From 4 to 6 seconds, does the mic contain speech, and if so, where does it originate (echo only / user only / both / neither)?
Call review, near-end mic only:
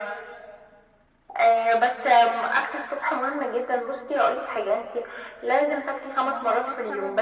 echo only